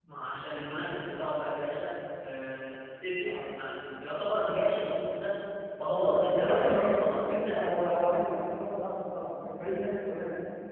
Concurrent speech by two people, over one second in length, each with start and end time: 5.8-7.6

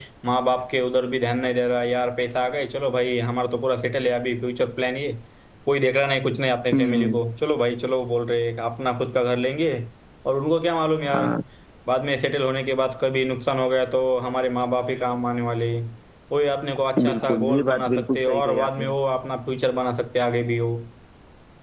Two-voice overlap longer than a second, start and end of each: 17.1-18.9

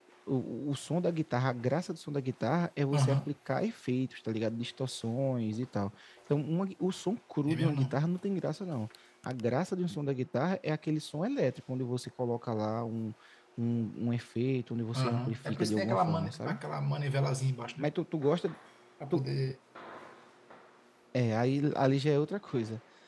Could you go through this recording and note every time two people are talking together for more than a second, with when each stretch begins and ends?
15.0-16.6

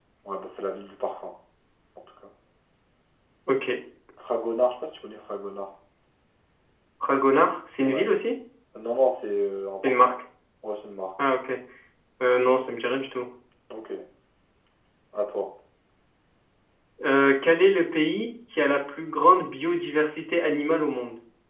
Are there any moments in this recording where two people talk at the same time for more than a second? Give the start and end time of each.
none

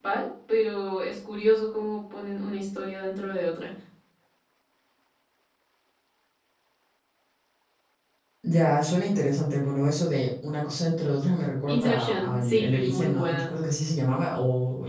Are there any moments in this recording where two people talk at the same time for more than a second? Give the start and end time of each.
11.7-13.5

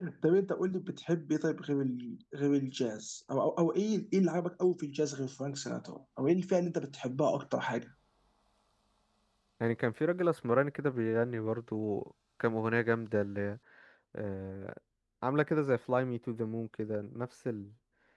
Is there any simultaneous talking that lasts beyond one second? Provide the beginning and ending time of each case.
none

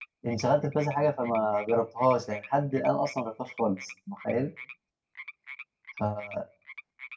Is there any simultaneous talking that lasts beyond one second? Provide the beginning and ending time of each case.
none

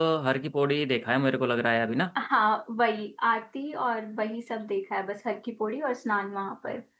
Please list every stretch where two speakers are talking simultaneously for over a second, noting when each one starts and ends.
none

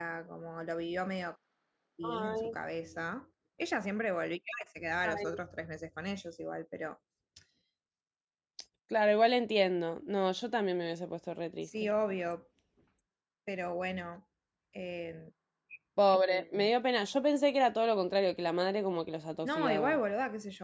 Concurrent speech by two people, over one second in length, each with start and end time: none

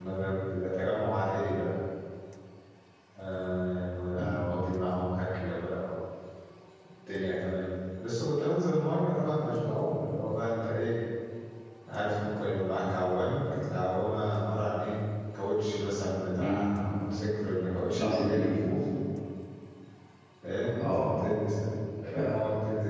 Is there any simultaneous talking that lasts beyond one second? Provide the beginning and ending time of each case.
none

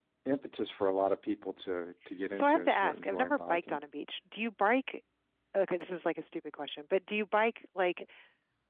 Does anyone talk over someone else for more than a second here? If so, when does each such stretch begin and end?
2.3-3.8

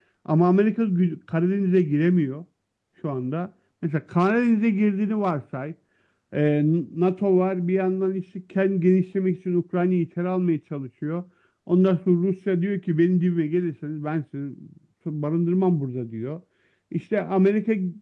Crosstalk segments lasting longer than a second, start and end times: none

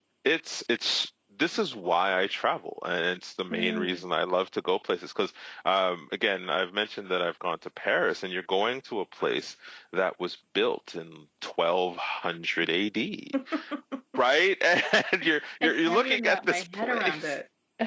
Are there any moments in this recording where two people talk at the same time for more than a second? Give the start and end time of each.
15.8-17.3

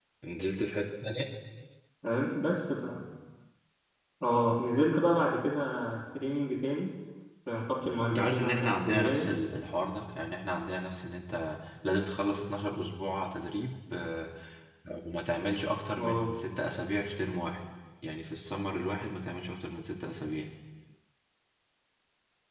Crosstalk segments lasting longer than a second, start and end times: 8.1-9.3

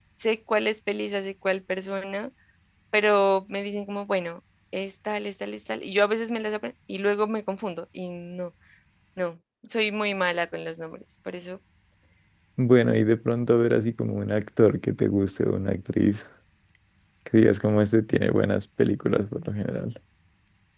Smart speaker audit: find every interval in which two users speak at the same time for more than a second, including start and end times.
none

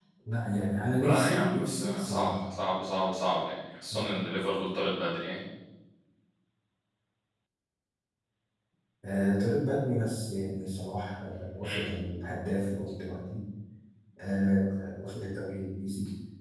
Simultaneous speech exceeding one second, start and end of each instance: 1.0-2.4

